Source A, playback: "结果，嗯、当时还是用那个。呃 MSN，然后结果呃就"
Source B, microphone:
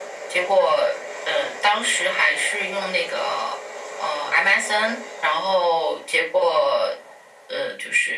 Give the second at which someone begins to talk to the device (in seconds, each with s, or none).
none